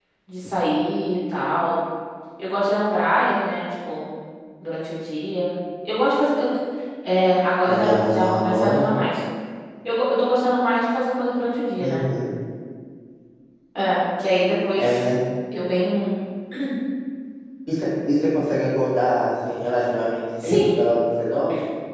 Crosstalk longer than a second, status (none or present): present